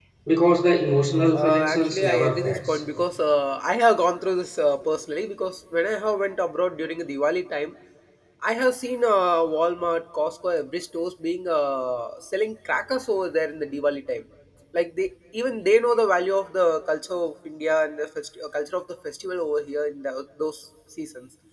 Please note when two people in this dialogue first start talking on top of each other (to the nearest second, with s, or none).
1 s